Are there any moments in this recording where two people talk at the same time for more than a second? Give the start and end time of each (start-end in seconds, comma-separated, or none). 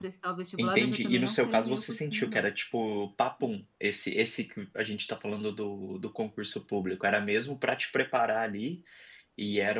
0.6-2.4